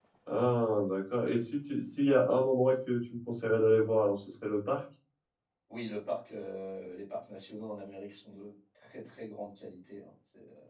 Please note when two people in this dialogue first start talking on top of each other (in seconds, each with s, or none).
none